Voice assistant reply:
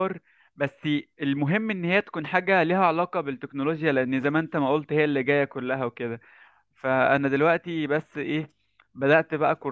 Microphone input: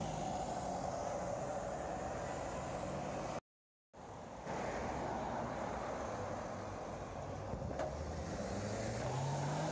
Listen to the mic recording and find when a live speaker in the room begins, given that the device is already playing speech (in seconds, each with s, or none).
none